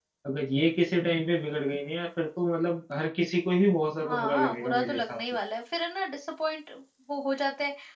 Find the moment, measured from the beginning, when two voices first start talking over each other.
4 s

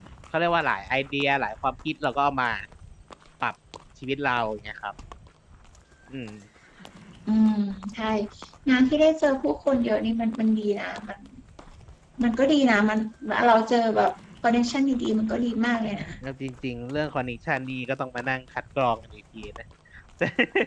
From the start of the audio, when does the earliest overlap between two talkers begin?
none

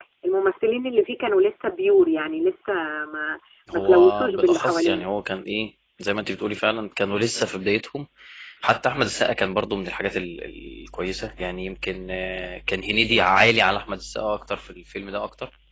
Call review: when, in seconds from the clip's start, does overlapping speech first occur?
4 s

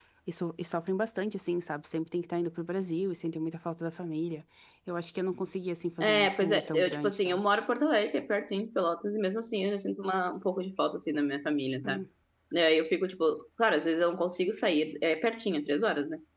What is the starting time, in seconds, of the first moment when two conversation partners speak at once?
6 s

